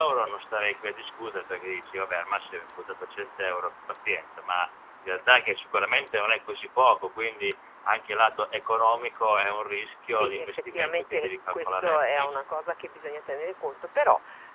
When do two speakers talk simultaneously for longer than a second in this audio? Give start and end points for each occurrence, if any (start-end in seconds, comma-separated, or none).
10.1-12.5